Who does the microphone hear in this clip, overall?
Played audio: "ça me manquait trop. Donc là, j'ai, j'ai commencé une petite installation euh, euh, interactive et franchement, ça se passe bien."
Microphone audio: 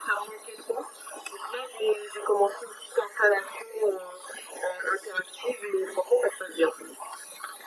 echo only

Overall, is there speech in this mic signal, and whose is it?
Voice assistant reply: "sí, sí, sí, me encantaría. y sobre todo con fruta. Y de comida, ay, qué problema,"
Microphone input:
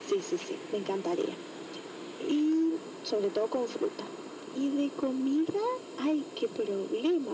echo only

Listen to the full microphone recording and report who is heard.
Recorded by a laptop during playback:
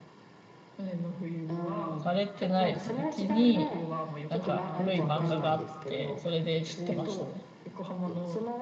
both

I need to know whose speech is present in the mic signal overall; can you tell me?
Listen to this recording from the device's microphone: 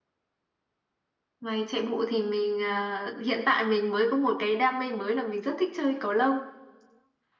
echo only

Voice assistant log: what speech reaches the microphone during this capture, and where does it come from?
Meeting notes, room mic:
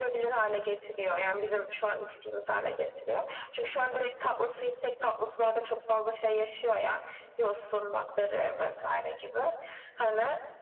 echo only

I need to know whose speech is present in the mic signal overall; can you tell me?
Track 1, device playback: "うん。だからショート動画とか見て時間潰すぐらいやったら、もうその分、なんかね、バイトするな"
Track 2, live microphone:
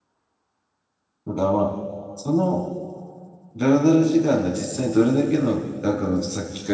user only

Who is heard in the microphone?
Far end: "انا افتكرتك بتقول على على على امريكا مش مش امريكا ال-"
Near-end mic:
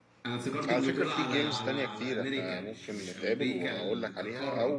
both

